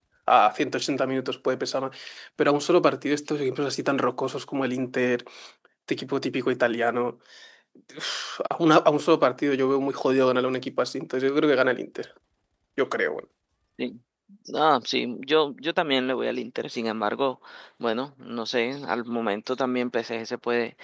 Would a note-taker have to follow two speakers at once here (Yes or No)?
No